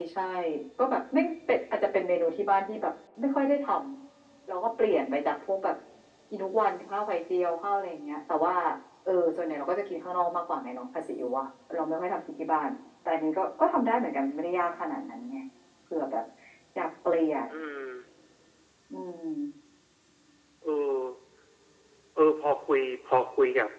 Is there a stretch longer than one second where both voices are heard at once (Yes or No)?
No